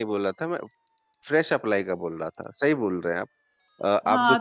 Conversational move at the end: taking over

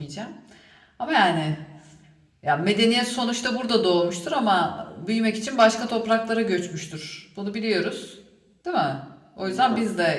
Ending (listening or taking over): listening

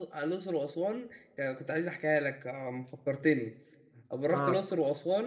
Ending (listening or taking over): listening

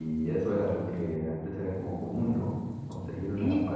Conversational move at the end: listening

